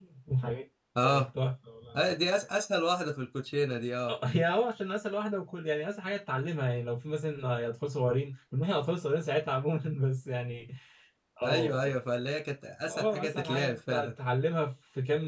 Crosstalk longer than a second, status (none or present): present